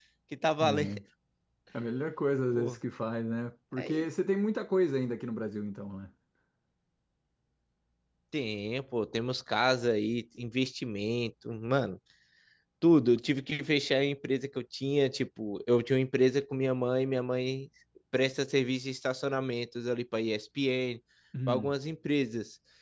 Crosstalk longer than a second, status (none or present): none